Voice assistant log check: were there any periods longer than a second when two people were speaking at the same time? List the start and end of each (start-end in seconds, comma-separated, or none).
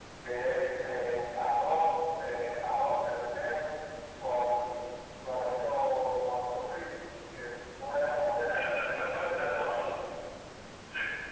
8.5-9.8